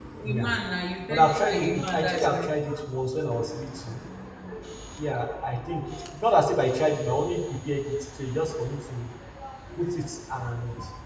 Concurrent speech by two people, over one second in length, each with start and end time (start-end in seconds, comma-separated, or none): 1.1-2.5